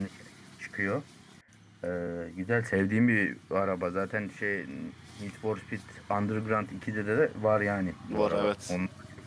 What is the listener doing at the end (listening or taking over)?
listening